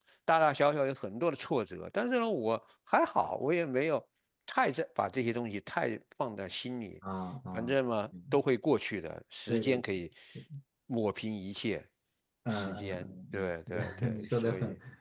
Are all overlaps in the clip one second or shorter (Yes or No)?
No